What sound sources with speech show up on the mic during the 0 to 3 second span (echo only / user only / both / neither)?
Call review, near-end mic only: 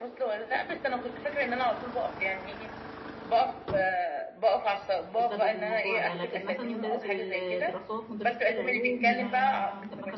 echo only